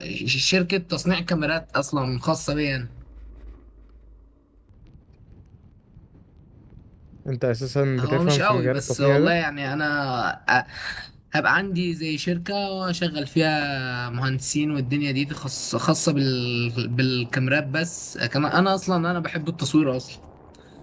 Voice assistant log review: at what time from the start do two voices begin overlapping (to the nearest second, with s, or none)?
8 s